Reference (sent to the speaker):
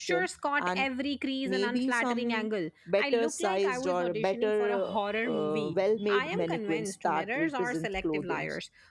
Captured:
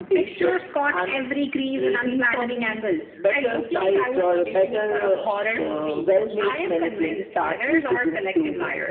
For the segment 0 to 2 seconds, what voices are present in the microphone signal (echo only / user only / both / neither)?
echo only